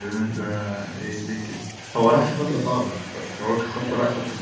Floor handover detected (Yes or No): Yes